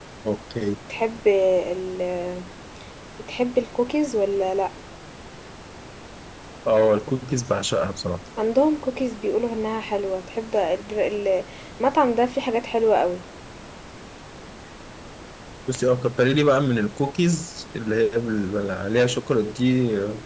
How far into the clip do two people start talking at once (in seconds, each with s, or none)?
none